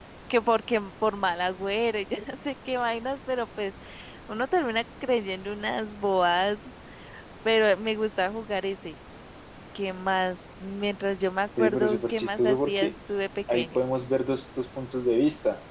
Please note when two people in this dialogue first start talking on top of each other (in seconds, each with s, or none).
11.6 s